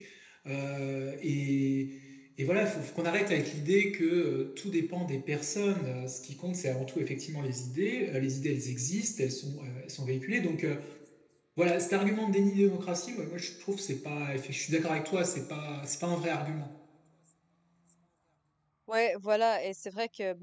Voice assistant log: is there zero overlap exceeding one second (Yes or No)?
Yes